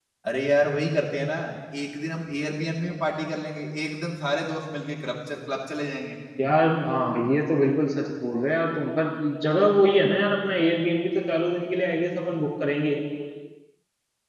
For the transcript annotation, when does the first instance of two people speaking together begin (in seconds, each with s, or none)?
none